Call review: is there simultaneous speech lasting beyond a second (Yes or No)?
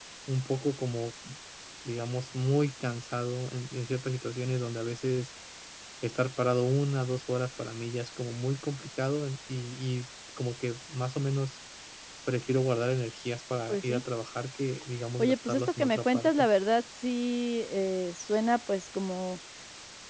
Yes